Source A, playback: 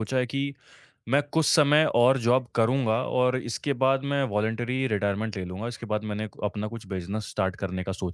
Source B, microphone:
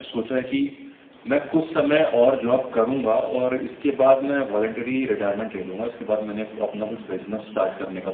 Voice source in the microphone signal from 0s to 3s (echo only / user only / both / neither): echo only